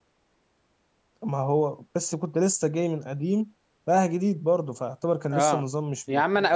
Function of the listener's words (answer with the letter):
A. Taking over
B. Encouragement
A